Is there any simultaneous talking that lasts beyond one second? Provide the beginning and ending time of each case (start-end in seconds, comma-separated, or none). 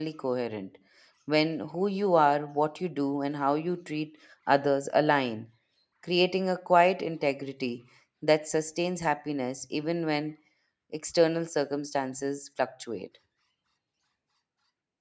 none